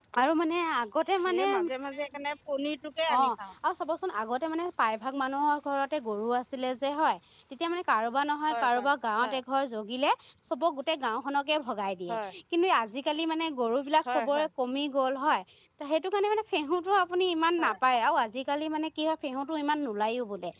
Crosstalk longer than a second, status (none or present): none